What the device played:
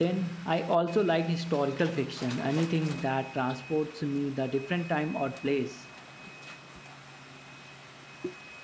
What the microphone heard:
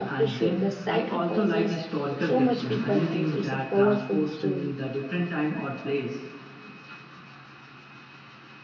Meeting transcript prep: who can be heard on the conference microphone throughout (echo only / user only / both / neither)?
both